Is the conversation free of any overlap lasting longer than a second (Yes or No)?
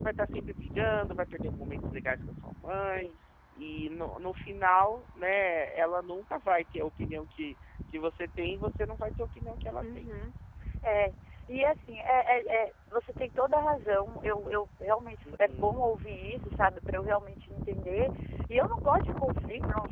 Yes